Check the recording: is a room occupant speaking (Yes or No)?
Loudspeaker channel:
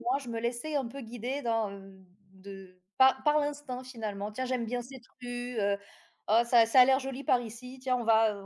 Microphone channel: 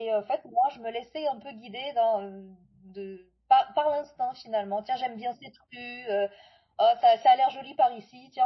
No